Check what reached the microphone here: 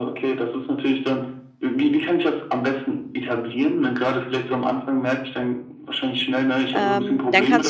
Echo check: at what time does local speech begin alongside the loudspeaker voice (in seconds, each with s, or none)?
6.7 s